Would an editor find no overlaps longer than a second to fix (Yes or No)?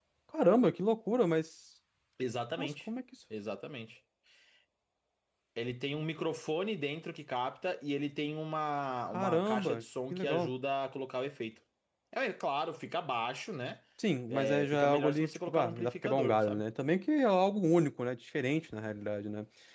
No